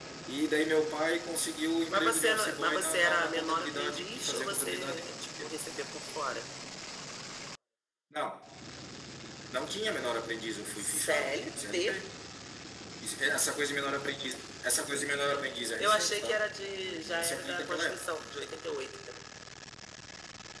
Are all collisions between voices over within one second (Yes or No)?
No